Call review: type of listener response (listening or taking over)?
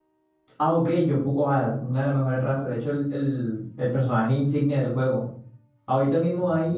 listening